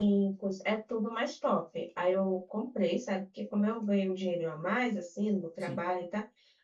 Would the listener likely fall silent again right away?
Yes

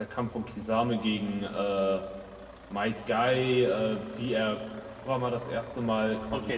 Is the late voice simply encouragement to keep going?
No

